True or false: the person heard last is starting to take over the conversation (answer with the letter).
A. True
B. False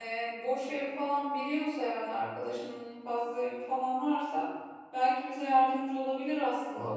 A